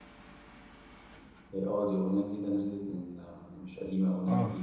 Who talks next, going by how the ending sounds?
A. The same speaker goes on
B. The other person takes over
B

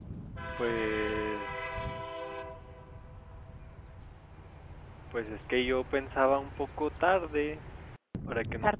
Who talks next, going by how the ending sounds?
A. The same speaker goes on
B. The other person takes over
A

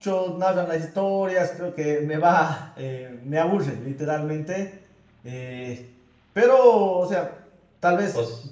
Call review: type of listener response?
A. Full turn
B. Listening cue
B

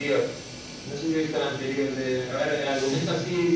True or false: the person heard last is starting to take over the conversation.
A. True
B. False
B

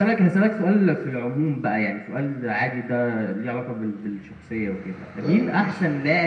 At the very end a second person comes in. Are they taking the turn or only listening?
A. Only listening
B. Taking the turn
A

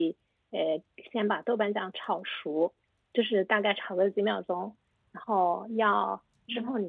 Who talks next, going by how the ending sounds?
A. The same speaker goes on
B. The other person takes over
A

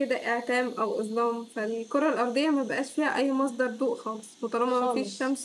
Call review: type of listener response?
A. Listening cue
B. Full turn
A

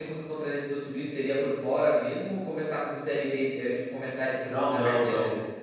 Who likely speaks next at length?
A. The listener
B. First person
A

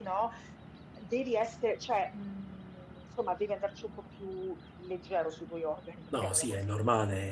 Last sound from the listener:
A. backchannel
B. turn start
B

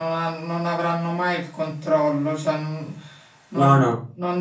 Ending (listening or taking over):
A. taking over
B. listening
B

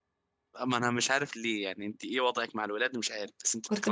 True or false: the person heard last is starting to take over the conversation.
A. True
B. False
A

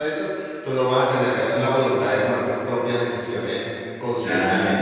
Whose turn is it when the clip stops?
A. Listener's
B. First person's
A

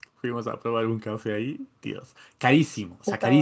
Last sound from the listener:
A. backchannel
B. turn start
A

